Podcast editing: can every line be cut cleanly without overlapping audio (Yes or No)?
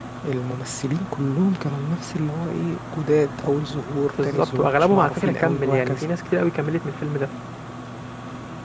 No